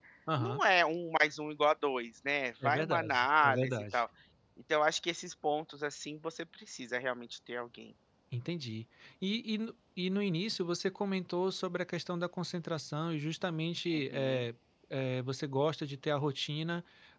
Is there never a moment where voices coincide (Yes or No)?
No